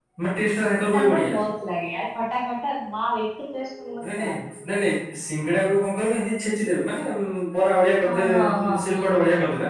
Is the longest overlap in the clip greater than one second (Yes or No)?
Yes